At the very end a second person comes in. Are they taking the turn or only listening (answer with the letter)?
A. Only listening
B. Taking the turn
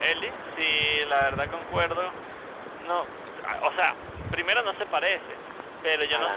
A